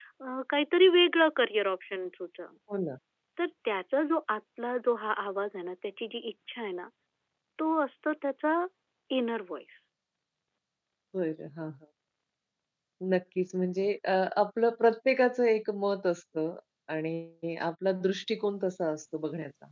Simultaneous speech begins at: none

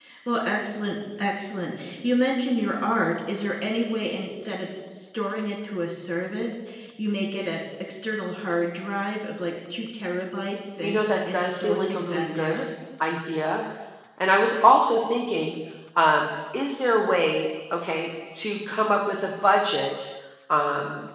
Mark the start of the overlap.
10.8 s

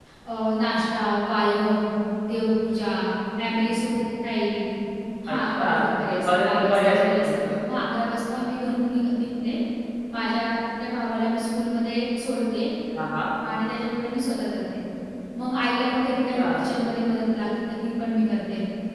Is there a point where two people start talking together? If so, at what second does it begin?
5.3 s

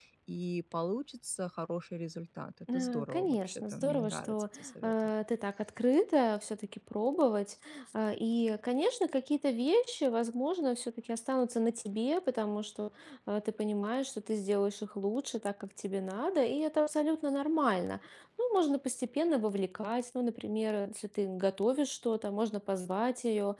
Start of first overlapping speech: 2.7 s

